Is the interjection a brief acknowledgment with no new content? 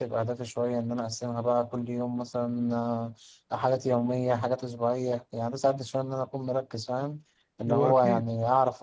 Yes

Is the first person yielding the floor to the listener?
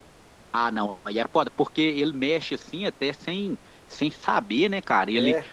No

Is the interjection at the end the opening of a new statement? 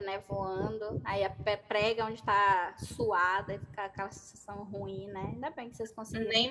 Yes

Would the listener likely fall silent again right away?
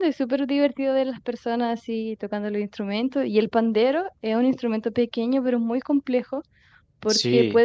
Yes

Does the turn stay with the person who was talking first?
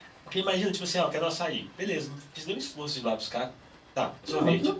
Yes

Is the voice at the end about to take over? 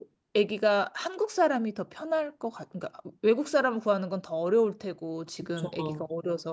No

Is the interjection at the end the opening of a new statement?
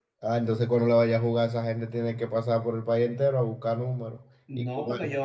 Yes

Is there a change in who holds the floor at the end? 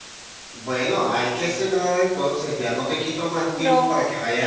No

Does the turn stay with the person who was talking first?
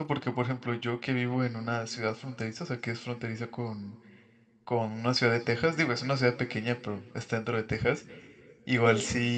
Yes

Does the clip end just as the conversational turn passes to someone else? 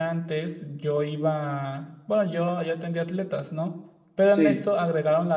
No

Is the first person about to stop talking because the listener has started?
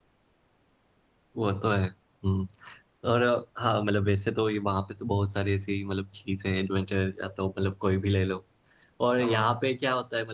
No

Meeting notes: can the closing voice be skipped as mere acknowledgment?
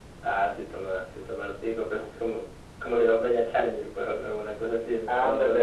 No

